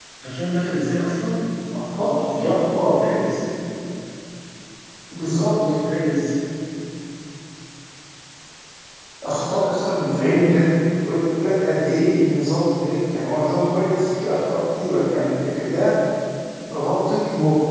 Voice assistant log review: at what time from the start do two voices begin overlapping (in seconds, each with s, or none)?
1.8 s